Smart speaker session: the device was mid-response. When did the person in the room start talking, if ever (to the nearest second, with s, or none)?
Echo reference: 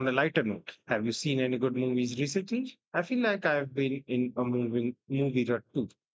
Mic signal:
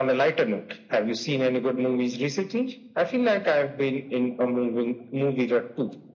none